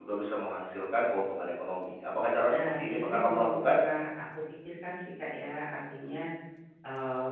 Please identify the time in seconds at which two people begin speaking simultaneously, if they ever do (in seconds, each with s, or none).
2.5 s